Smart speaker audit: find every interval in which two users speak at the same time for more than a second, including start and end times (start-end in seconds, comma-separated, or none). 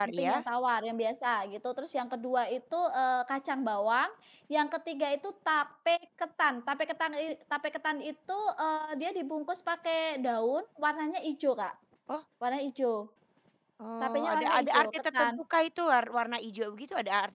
14.0-15.3